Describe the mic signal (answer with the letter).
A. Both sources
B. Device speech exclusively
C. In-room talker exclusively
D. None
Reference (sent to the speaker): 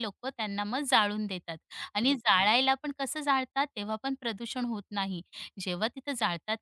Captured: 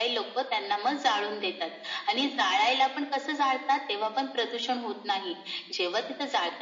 B